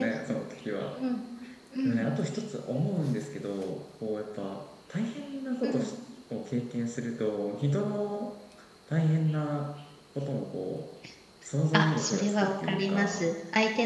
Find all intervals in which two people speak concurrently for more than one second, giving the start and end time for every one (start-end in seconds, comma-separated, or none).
11.7-13.3